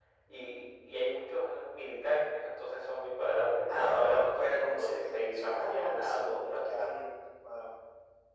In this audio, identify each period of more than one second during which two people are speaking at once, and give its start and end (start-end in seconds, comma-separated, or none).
3.7-7.1